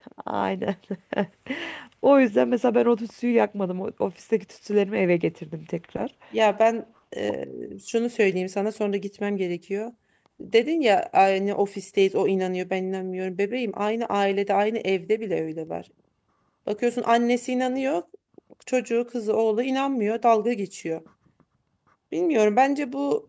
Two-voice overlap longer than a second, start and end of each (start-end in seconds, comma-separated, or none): none